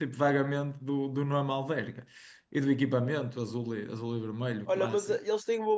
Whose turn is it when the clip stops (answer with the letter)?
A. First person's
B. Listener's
B